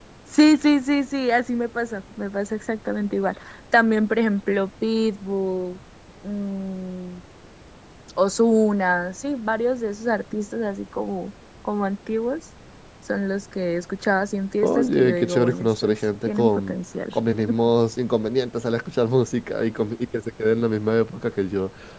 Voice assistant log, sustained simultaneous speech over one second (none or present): present